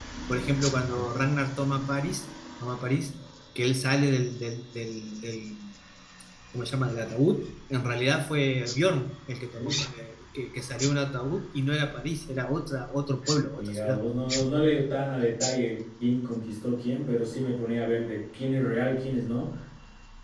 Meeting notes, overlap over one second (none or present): none